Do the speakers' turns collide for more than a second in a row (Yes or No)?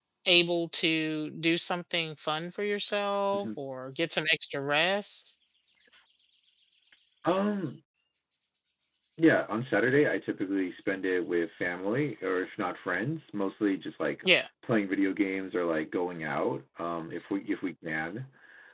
No